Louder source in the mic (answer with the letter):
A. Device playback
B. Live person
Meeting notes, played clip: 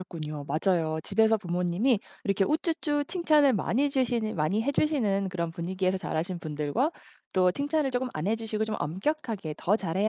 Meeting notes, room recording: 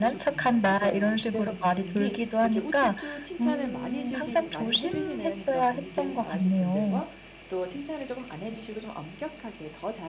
B